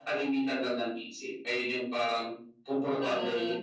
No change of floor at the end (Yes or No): No